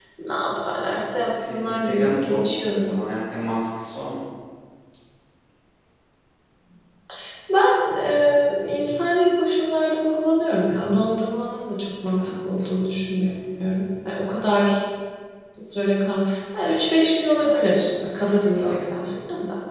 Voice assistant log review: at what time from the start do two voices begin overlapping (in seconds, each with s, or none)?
1.4 s